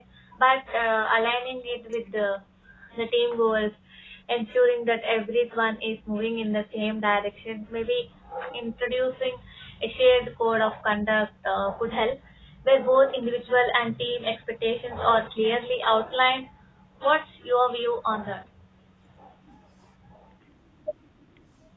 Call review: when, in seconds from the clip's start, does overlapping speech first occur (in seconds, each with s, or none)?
none